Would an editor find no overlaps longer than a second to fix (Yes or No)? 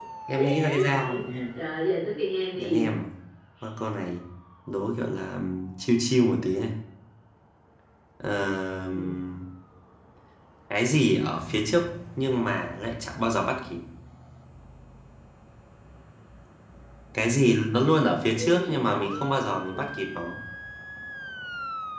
No